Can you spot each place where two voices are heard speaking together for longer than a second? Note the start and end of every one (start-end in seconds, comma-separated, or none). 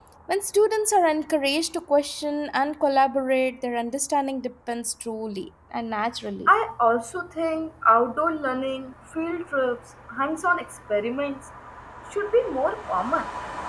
none